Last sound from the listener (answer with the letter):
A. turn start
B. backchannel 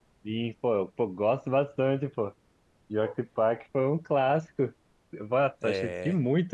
B